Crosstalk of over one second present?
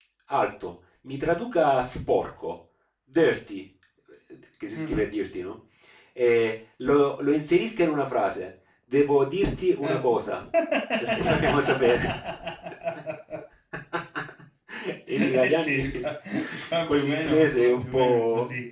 Yes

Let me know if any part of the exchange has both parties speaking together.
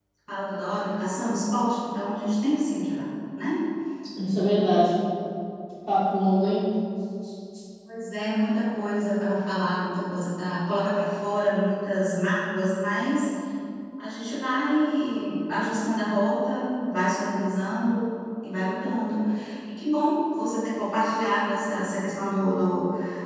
No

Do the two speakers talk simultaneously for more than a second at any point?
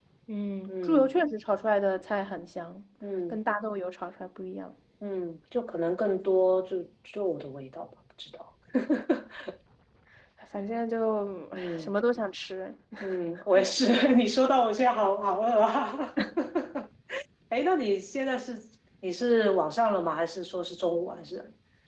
No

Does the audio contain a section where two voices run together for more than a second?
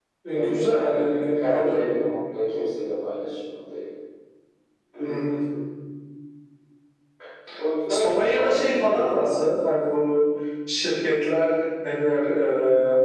Yes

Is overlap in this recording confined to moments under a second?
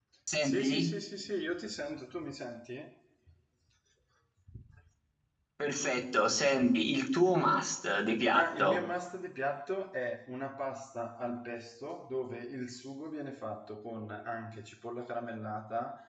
Yes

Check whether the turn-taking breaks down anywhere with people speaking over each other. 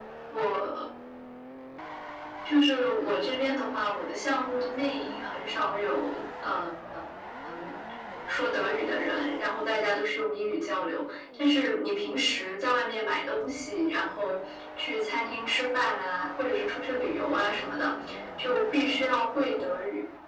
No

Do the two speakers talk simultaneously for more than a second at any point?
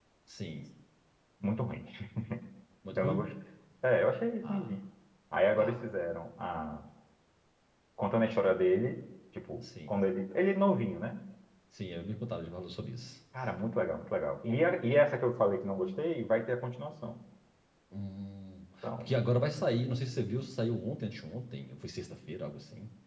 No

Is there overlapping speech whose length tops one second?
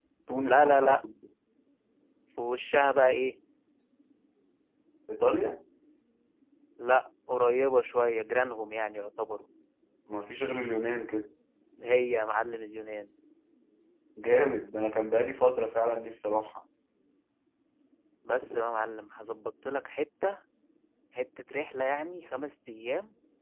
No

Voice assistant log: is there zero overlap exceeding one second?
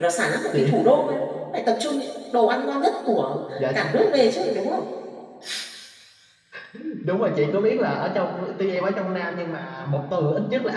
Yes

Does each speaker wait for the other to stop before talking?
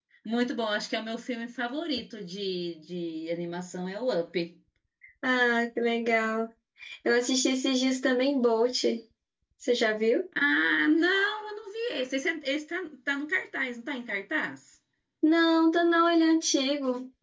Yes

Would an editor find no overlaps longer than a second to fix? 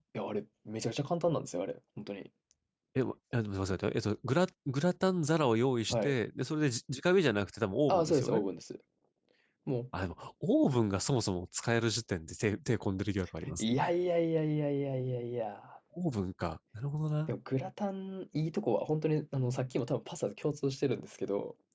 Yes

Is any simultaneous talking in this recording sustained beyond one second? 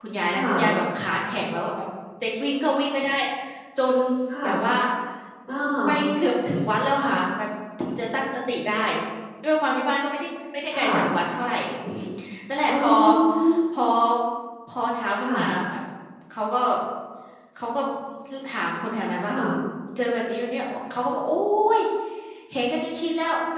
No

